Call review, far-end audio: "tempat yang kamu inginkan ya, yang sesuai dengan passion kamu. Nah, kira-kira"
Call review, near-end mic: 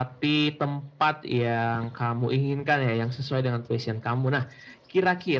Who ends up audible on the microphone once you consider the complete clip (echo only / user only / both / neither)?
echo only